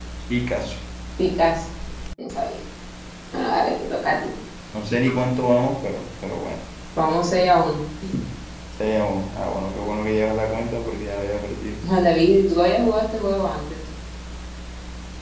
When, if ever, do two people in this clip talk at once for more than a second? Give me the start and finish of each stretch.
none

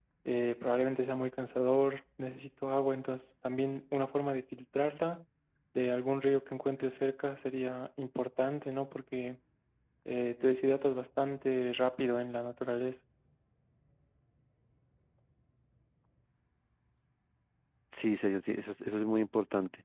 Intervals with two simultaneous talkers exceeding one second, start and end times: none

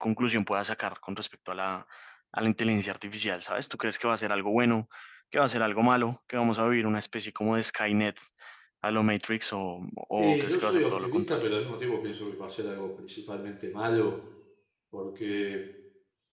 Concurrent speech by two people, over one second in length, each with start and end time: 10.2-11.4

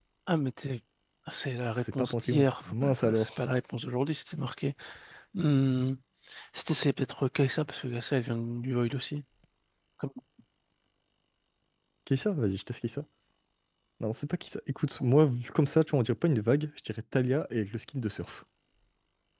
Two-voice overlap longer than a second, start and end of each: 1.8-3.3

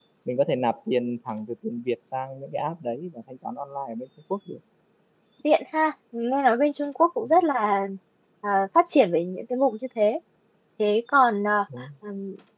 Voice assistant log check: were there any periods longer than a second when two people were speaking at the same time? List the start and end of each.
none

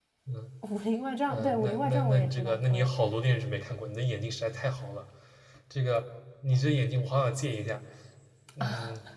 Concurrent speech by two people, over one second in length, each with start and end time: 1.3-3.1

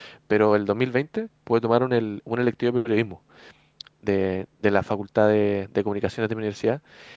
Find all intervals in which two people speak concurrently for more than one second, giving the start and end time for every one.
none

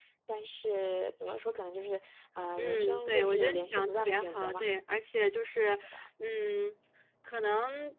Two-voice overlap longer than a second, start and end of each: 2.6-4.7

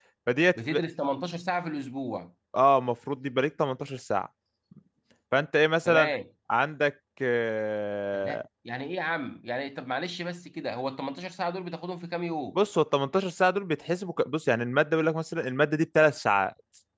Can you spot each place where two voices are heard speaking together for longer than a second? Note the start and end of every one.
none

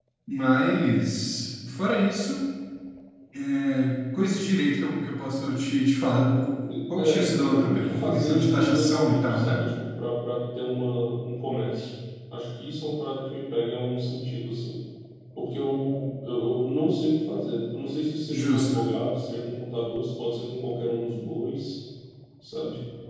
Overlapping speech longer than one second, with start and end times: 6.7-9.6

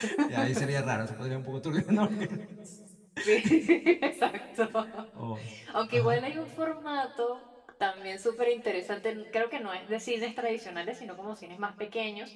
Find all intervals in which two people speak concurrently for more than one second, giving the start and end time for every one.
none

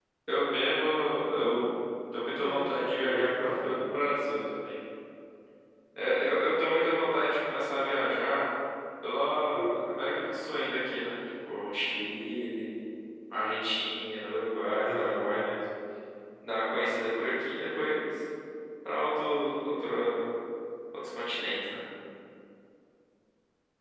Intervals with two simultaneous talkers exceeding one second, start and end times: 2.4-3.8

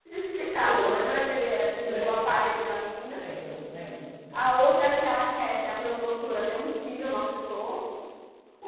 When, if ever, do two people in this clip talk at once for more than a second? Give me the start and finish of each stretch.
none

